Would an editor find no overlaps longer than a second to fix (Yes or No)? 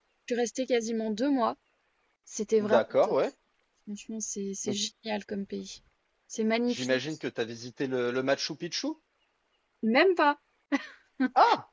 Yes